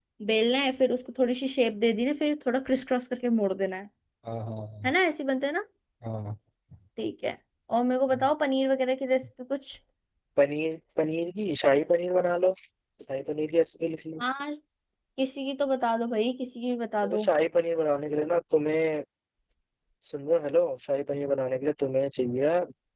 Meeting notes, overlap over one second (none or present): none